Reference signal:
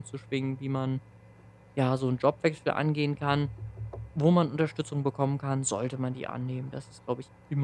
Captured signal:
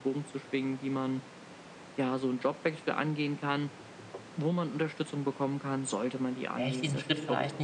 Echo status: present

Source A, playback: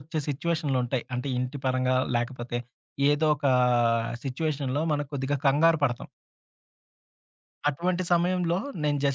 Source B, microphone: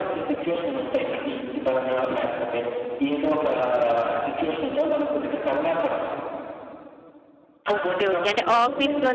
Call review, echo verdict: present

